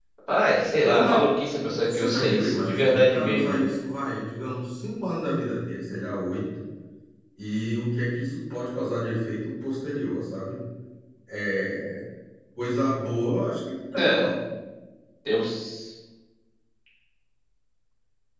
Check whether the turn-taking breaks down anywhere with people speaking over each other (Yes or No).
Yes